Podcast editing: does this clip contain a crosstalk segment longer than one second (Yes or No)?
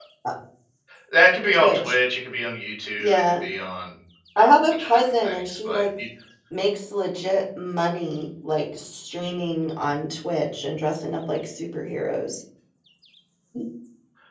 Yes